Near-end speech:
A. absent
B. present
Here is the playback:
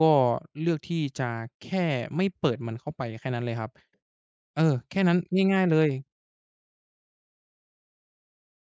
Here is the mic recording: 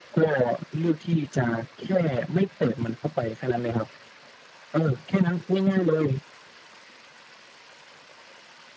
A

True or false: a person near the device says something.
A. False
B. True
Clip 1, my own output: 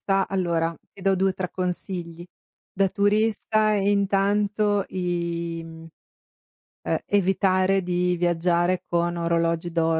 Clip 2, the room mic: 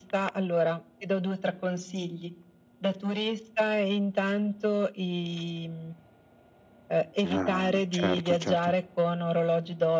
B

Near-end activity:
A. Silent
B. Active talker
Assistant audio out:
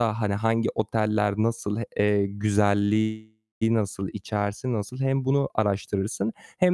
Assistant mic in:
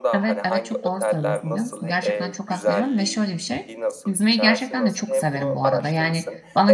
B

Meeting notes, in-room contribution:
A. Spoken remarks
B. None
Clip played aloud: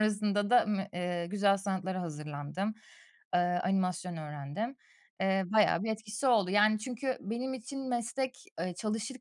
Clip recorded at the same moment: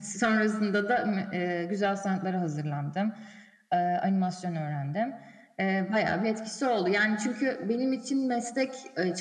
B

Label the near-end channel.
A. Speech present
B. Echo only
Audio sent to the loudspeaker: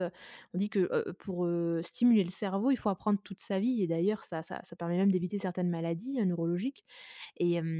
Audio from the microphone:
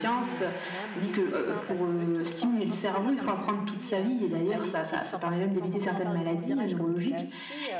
A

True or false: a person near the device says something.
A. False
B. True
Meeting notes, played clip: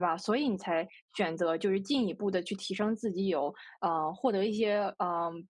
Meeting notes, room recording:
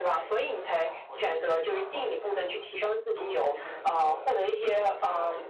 B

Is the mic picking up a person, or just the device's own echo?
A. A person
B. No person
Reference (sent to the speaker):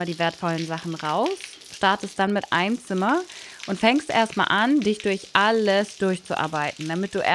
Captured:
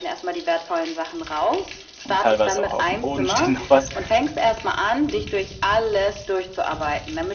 A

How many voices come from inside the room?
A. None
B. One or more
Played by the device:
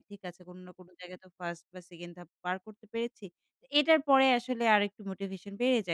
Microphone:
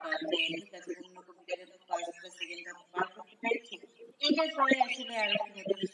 A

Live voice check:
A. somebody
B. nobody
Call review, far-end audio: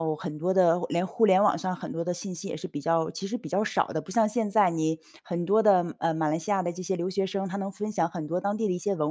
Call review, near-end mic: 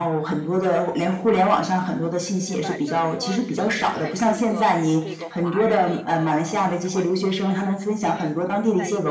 A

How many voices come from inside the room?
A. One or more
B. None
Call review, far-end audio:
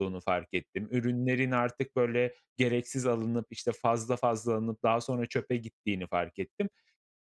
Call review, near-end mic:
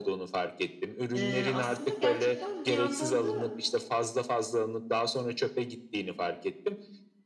A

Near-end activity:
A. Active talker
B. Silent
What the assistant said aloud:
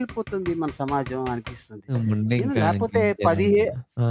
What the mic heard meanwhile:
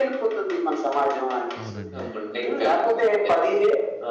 A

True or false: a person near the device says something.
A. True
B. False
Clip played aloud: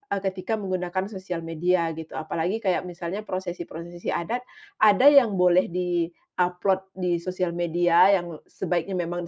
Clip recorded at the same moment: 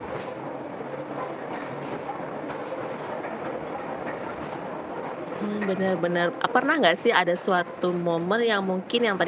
A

